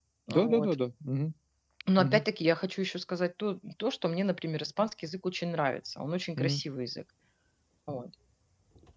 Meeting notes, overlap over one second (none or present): none